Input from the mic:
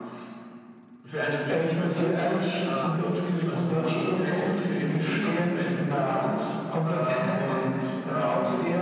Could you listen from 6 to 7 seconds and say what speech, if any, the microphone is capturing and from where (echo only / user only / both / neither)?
echo only